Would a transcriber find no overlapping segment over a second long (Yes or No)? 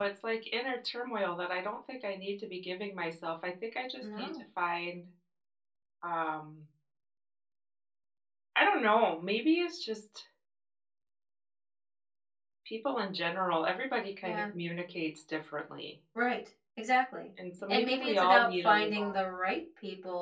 No